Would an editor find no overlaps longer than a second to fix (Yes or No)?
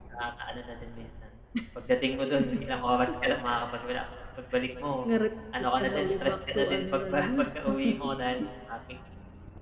No